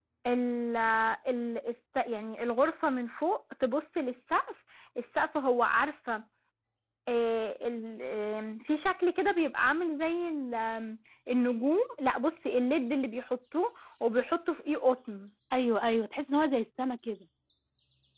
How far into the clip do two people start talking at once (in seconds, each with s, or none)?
none